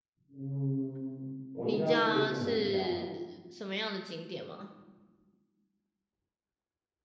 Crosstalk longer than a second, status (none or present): present